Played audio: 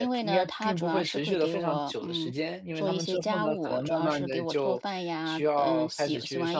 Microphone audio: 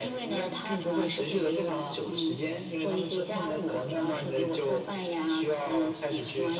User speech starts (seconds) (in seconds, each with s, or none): none